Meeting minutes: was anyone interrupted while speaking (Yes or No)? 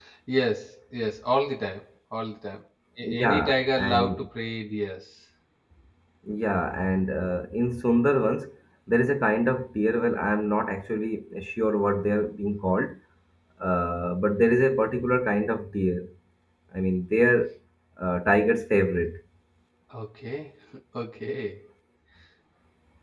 Yes